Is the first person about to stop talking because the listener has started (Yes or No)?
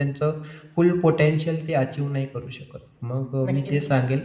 No